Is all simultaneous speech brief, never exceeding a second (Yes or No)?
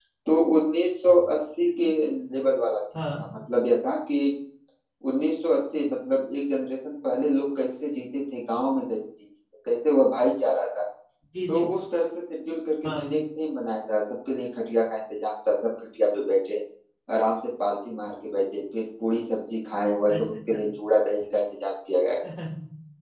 Yes